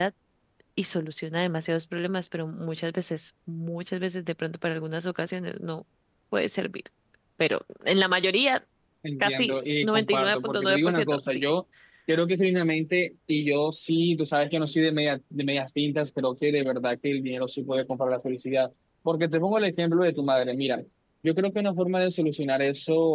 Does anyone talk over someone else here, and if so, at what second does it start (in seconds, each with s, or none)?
9.2 s